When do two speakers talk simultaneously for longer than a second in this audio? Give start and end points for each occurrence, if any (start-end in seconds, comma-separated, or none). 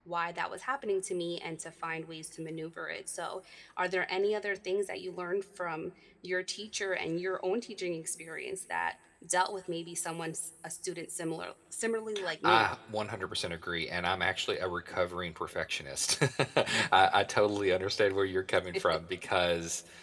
none